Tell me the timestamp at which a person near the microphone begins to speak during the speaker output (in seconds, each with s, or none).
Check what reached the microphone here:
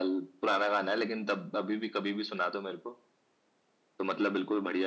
none